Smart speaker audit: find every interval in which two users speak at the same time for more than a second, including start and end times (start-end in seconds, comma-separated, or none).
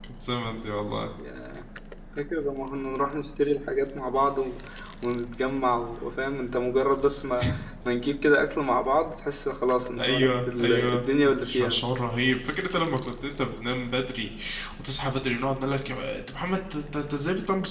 10.0-11.8